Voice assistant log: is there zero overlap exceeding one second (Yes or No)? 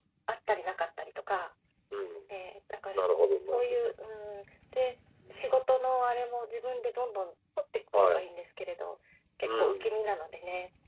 Yes